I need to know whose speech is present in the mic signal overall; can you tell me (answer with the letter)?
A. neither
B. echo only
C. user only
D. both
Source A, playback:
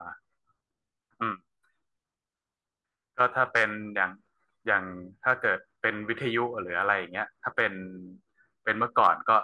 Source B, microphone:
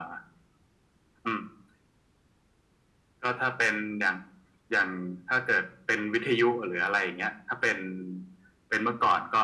B